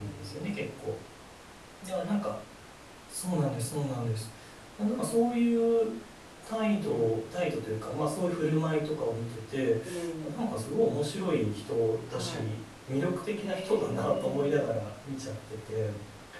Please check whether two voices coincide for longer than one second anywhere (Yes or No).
Yes